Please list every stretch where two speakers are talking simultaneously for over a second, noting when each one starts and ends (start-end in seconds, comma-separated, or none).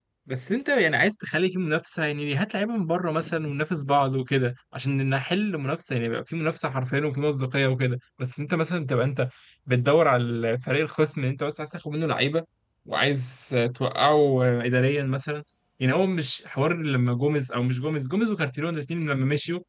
none